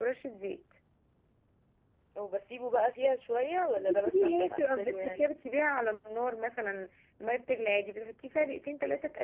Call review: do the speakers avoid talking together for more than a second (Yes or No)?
No